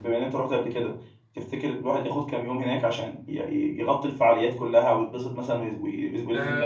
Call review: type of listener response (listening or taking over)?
taking over